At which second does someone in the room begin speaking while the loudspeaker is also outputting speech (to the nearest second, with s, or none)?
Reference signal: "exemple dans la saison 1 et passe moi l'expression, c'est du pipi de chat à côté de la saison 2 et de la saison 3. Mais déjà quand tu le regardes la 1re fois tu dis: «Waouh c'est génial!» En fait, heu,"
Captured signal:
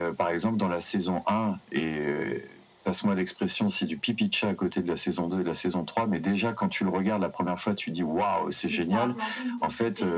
9 s